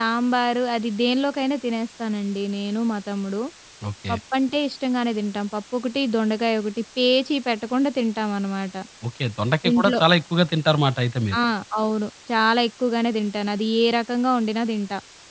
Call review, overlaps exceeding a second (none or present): none